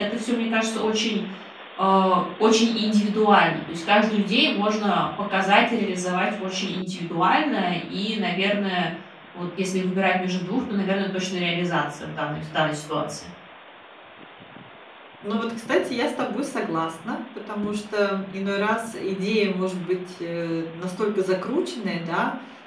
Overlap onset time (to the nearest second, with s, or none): none